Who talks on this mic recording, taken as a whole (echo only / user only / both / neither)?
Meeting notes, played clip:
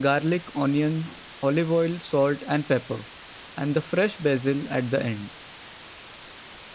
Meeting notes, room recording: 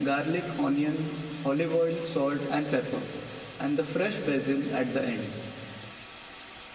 echo only